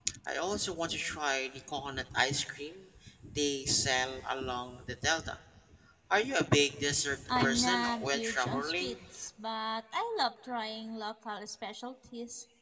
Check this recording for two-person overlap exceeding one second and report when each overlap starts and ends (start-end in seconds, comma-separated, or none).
7.3-8.9